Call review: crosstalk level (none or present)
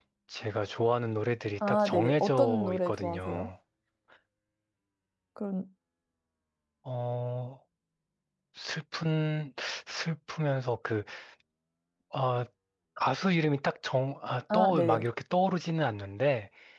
present